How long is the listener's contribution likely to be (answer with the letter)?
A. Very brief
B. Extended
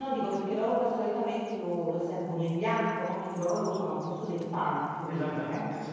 B